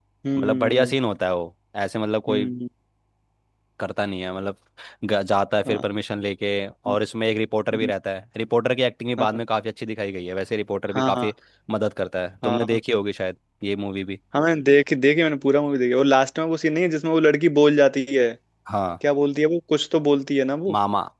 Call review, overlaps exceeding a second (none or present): none